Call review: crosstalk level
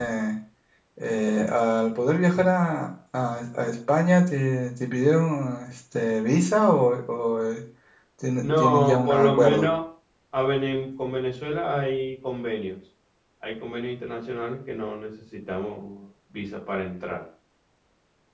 present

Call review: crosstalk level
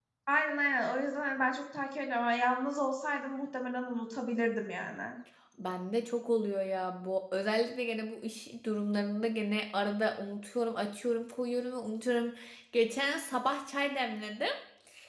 none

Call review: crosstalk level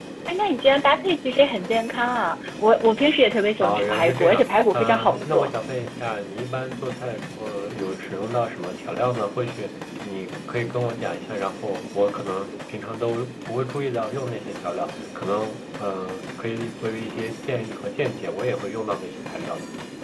present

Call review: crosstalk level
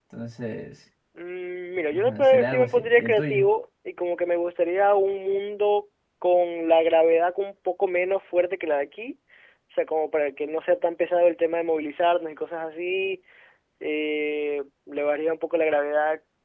present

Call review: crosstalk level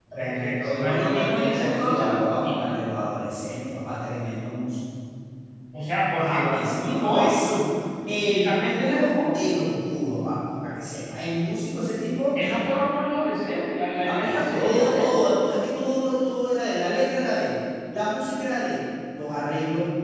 present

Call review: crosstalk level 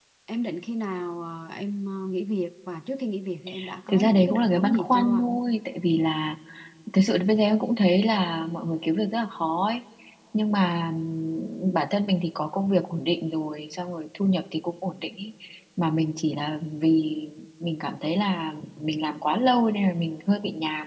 present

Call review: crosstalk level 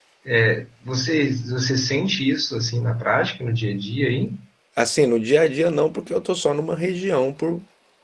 none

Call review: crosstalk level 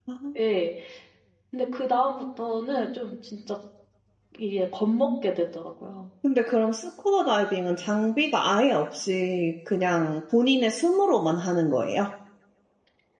none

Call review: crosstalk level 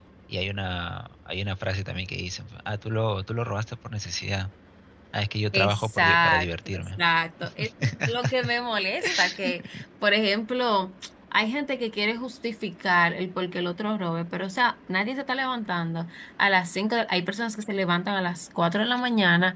present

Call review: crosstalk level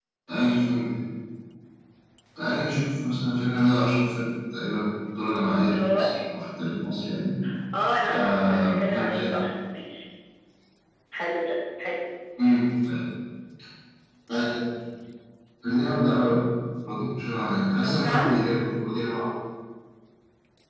present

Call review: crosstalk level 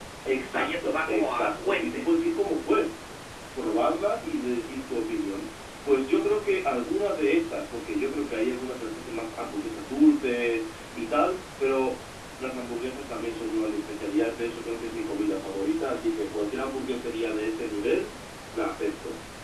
present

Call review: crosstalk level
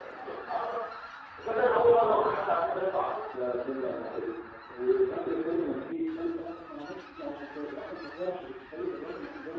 none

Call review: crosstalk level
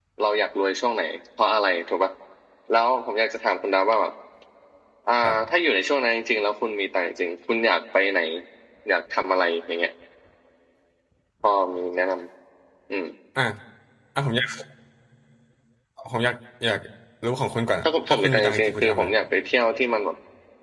present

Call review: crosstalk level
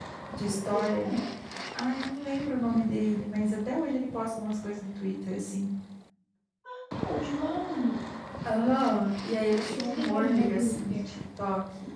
present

